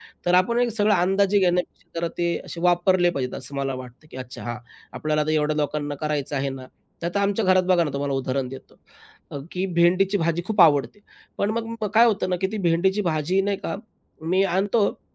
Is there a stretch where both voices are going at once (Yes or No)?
No